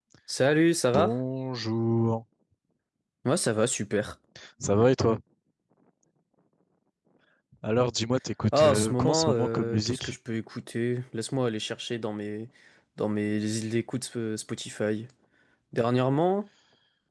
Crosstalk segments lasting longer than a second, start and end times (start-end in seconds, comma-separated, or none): 8.5-10.1